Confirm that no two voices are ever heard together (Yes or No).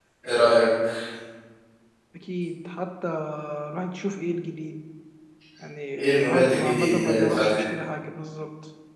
No